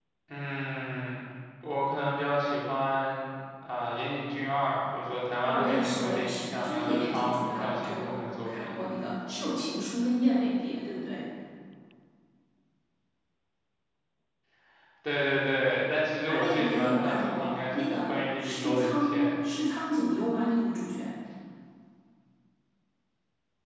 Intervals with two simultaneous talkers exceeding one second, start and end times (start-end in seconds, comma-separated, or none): 5.4-8.8, 16.3-19.3